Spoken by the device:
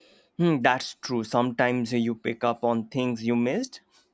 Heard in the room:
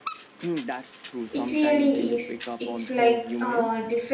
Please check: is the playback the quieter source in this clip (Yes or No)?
Yes